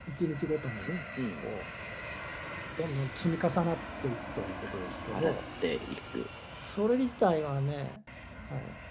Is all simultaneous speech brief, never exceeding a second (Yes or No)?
Yes